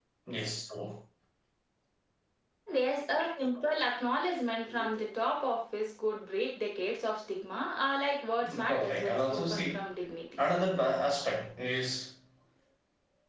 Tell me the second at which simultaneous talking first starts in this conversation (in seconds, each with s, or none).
8.4 s